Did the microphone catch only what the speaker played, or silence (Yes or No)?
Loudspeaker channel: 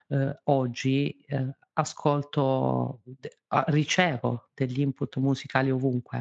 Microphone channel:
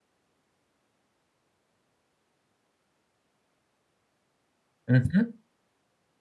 No